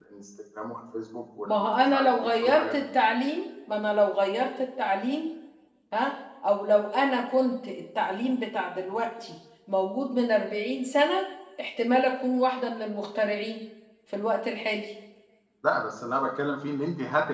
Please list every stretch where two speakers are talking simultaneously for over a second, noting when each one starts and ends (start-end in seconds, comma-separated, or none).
1.4-2.9